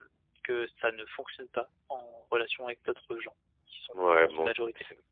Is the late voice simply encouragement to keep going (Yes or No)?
No